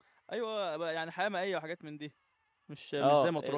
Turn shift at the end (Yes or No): Yes